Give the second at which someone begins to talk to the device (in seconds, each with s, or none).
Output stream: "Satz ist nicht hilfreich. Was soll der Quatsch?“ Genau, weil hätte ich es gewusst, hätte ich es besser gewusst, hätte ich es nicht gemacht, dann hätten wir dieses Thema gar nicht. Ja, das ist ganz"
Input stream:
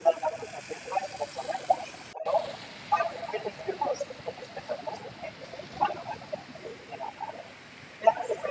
none